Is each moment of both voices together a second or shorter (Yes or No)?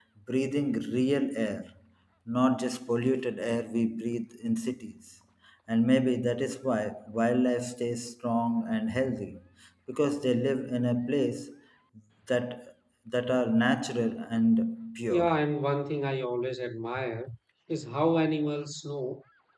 Yes